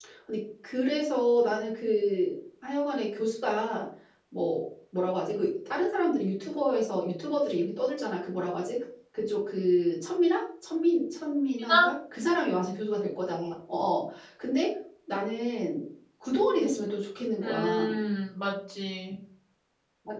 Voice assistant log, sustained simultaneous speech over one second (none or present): none